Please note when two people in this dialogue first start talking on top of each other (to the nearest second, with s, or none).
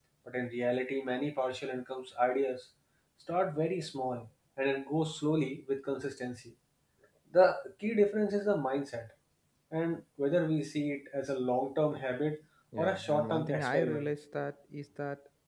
13 s